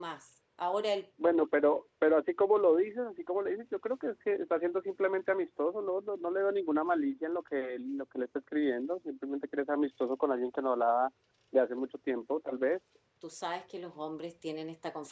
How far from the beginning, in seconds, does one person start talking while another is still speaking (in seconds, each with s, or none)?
none